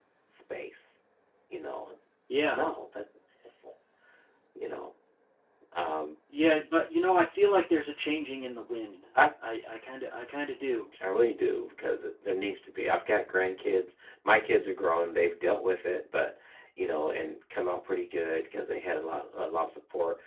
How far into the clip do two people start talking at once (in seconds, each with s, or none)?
none